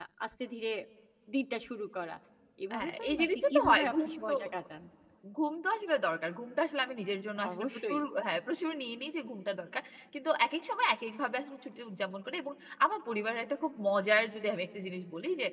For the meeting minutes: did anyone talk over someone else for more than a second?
Yes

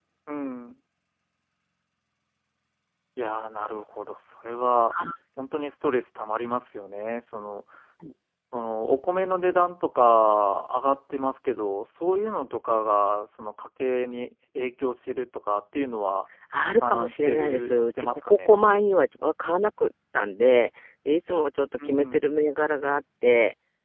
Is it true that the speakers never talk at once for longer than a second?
No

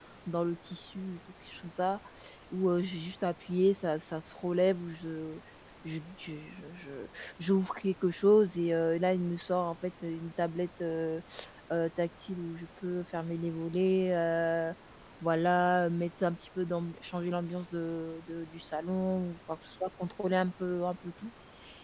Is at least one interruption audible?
No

